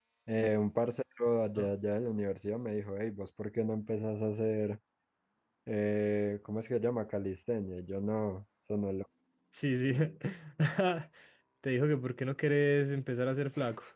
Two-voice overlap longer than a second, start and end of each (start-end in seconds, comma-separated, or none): none